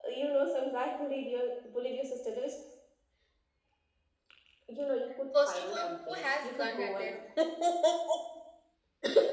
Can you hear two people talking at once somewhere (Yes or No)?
Yes